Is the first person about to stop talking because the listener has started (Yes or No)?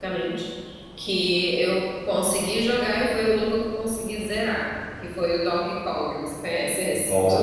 Yes